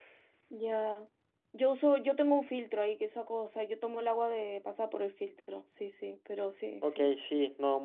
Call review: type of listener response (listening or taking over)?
taking over